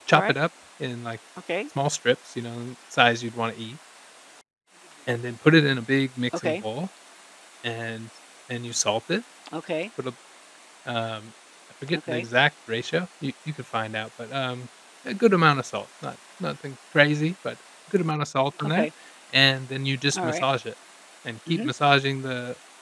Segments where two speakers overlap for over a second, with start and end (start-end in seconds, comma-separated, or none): none